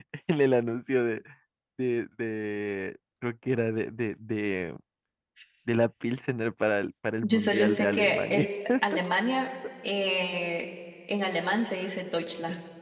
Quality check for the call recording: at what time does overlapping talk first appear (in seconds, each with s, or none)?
7.2 s